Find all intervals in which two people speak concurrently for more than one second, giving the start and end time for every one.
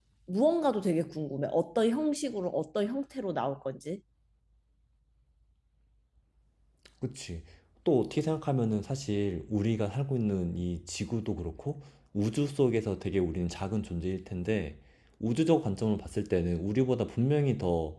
none

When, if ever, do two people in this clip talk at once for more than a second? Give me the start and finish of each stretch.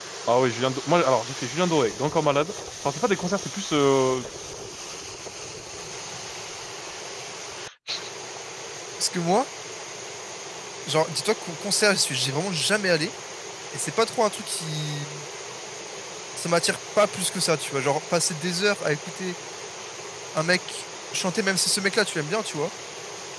none

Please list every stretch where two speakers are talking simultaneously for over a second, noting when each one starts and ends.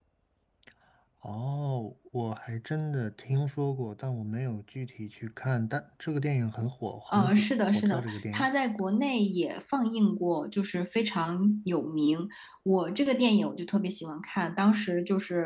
7.1-8.5

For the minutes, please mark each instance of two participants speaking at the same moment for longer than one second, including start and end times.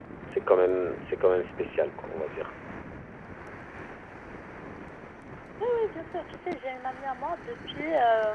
none

